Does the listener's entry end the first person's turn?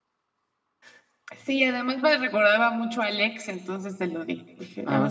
Yes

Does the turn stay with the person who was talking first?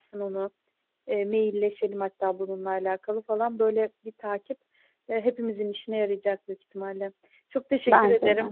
Yes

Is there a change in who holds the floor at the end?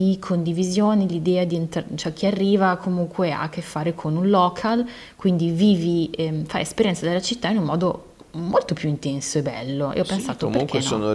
Yes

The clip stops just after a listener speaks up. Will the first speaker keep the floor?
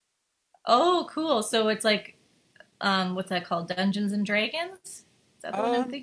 No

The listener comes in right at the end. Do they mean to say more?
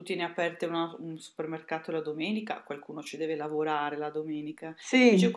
No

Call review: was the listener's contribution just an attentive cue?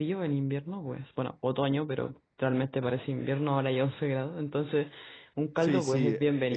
No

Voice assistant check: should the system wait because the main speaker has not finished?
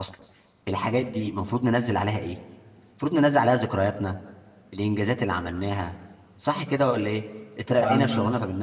Yes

